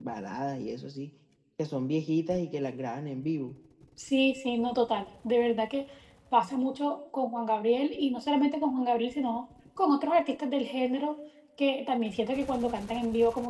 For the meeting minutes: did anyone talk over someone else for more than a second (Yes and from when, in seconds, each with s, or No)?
No